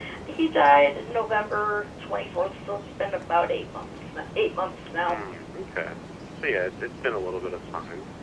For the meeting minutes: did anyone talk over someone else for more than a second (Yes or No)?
No